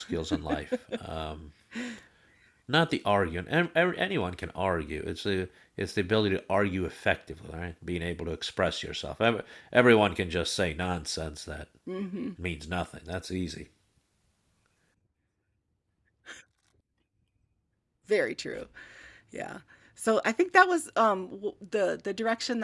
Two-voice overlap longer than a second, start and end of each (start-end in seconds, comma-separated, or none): none